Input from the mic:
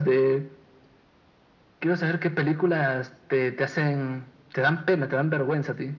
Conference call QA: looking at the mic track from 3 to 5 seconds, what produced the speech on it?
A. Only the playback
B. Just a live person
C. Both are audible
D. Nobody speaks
A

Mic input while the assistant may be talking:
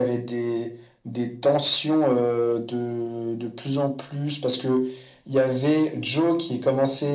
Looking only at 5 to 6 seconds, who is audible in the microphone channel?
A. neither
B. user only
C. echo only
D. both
C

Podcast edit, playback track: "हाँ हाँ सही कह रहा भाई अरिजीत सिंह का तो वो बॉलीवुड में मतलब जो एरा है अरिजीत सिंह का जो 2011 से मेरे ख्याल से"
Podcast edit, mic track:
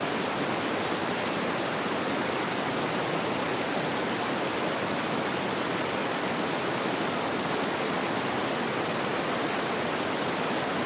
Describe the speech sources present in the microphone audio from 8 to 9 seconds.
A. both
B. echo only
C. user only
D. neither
D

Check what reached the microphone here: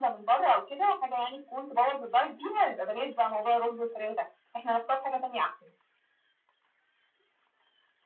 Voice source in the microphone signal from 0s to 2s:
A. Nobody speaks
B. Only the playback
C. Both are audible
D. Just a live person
B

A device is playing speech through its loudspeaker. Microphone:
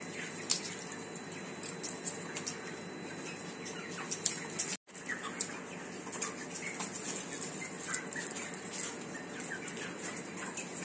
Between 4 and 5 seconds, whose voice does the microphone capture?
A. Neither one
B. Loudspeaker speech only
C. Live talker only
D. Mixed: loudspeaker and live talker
A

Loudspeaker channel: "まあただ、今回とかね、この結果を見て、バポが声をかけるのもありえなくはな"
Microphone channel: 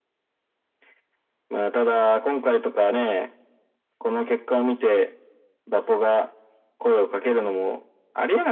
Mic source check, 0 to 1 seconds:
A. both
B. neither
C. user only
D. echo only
B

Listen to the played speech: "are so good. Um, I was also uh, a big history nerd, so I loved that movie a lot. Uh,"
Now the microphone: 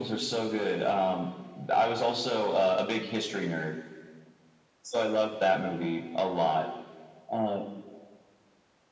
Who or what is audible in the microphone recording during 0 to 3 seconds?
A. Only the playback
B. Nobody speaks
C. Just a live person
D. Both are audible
A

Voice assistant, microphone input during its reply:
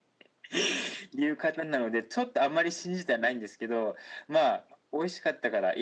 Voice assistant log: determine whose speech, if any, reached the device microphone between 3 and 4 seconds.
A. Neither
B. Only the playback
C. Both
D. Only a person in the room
B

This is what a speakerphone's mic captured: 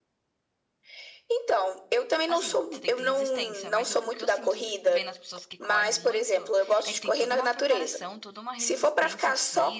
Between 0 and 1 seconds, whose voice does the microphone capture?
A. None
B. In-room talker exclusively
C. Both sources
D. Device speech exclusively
A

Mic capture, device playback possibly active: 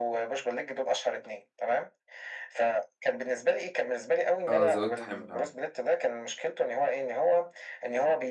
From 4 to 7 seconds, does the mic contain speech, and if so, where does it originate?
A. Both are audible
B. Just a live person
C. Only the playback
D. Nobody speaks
A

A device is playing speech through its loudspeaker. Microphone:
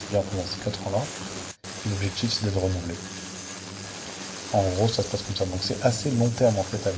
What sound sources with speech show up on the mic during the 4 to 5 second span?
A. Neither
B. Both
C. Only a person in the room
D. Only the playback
C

